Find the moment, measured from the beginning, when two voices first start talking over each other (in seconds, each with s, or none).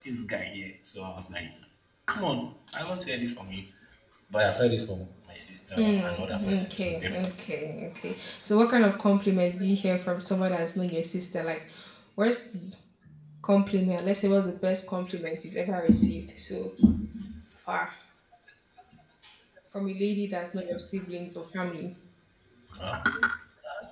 6.1 s